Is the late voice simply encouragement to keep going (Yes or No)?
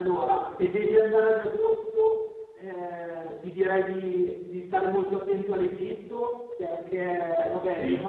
Yes